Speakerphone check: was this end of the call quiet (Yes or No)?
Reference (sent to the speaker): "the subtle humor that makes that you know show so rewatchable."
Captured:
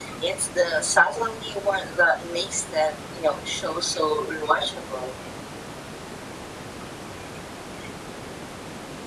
Yes